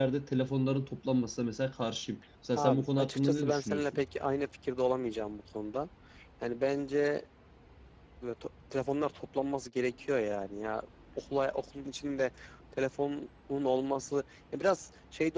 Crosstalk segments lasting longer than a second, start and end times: 2.5-3.8

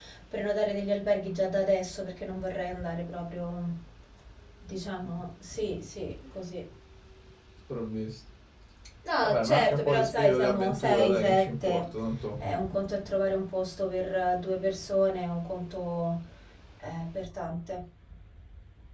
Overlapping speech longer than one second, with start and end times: 9.2-11.8

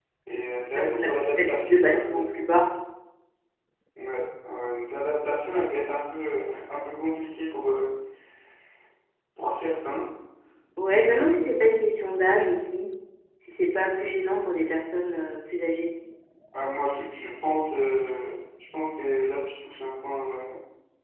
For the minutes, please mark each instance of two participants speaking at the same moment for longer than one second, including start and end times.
0.7-2.5

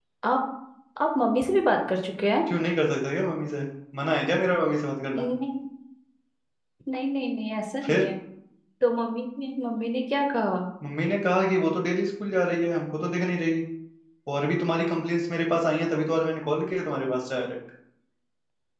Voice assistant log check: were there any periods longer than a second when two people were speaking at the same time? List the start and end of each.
none

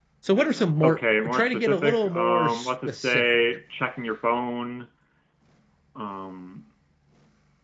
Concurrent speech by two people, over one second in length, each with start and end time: 0.8-3.2

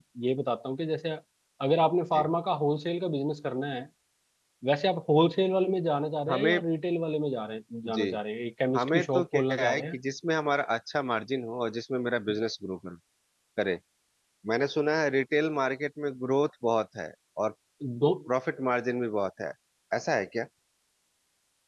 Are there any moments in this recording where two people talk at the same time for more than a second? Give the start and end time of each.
8.8-10.0

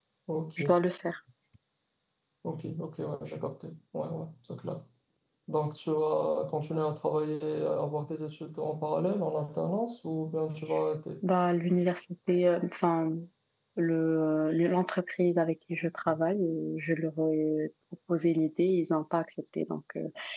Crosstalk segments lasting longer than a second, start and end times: none

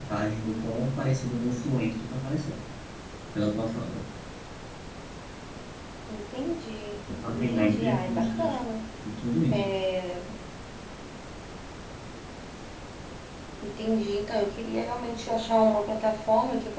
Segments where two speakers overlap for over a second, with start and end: 7.3-8.6

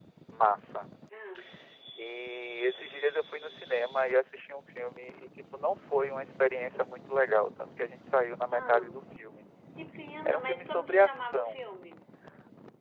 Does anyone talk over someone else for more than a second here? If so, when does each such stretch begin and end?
10.2-11.6

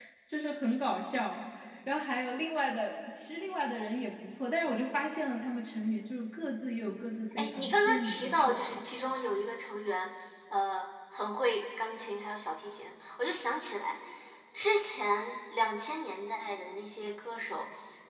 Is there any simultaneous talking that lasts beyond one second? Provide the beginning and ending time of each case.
7.3-8.8

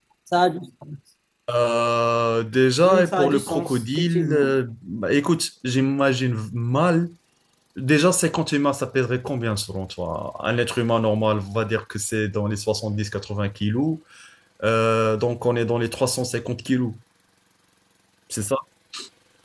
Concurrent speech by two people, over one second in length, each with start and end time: 2.8-4.4

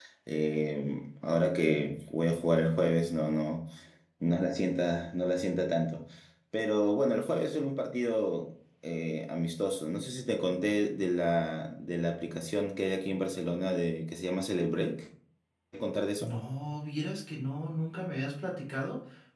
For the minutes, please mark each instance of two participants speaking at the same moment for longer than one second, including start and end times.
none

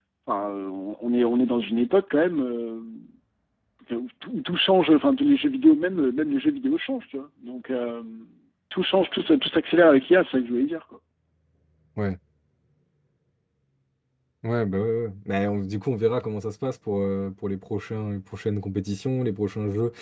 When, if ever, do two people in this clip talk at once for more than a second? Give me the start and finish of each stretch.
none

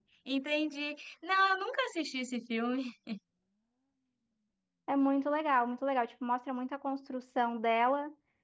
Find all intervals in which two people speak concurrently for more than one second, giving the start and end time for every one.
none

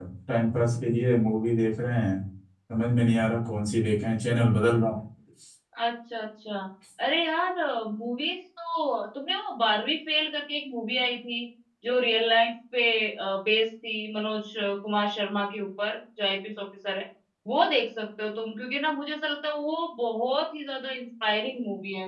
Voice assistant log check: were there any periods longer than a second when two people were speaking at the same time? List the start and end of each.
none

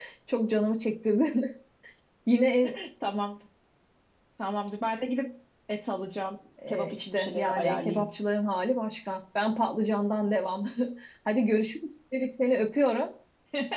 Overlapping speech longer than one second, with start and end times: 6.7-8.0

